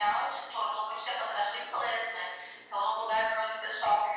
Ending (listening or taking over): listening